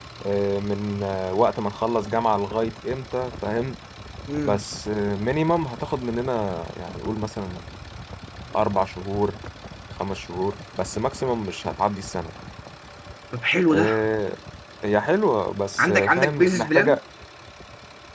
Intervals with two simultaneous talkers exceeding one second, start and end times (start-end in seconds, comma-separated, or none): 15.8-17.0